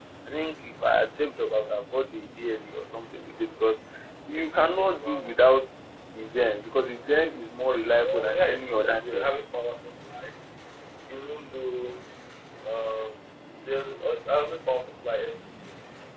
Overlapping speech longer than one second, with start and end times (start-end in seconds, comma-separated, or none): 8.0-9.2